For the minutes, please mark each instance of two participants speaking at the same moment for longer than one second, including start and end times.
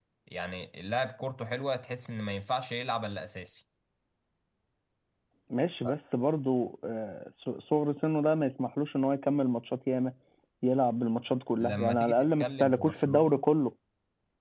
11.6-13.4

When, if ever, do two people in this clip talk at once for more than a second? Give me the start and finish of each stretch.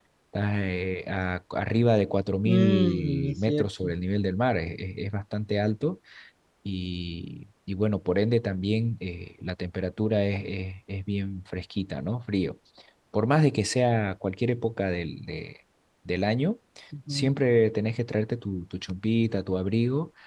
2.5-3.9

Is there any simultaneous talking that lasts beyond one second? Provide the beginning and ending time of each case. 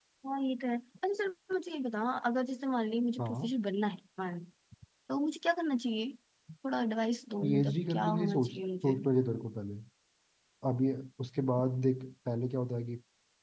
7.4-9.0

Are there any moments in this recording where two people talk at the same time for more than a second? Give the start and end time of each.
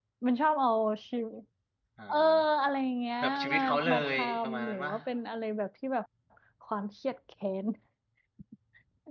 3.2-4.9

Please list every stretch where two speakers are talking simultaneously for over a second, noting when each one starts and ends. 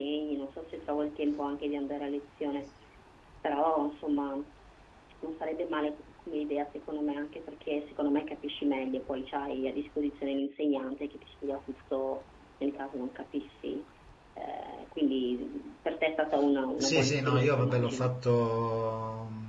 16.8-18.1

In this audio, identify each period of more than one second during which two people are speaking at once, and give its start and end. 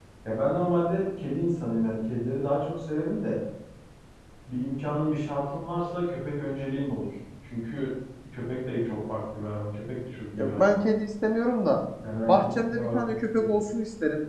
12.3-13.6

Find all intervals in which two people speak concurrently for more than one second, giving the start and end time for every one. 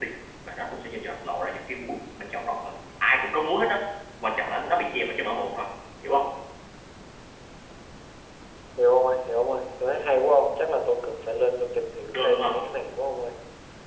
none

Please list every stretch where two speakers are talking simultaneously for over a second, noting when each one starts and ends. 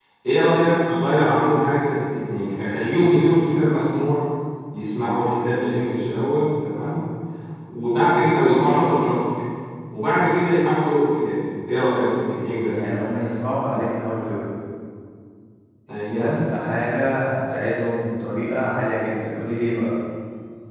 none

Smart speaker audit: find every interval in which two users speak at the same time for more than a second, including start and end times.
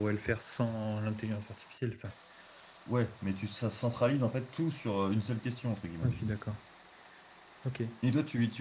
none

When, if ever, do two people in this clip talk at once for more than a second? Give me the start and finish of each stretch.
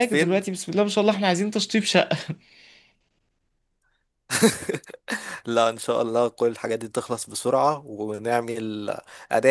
none

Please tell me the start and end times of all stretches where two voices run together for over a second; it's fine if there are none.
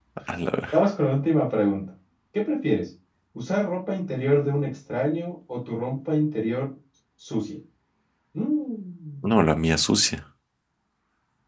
none

